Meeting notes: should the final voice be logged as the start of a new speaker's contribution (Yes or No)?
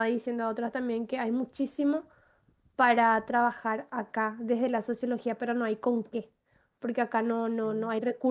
No